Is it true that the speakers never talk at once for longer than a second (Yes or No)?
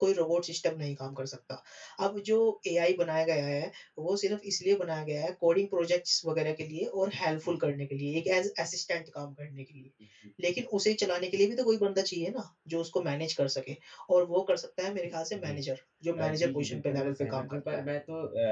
No